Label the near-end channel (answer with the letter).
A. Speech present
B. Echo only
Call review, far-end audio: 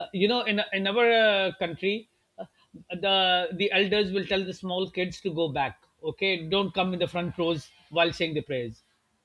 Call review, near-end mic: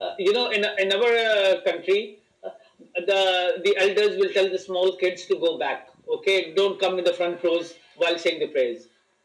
B